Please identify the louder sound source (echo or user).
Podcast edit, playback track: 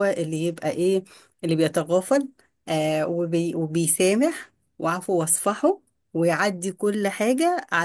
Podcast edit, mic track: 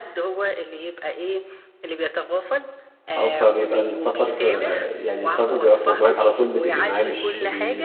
user